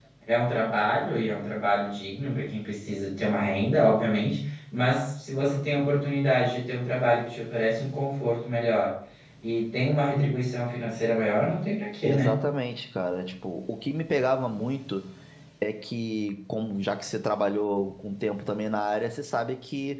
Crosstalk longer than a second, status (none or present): none